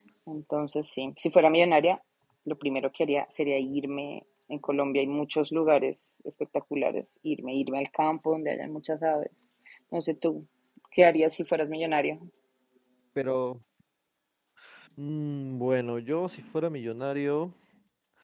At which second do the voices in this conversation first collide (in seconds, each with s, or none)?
none